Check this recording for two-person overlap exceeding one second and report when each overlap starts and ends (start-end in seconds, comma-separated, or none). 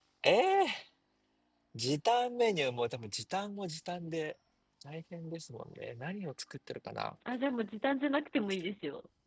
none